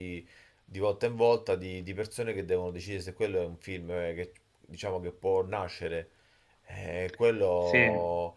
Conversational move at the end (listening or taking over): listening